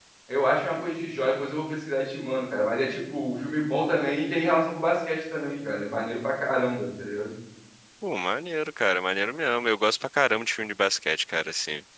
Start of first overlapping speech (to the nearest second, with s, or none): none